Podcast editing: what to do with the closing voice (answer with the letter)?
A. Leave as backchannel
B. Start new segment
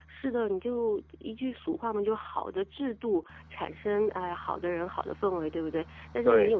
A